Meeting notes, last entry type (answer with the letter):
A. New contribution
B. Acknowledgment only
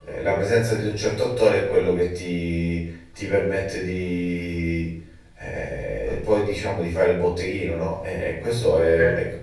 B